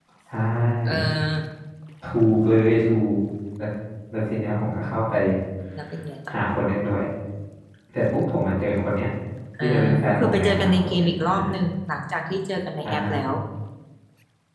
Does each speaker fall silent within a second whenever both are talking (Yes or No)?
No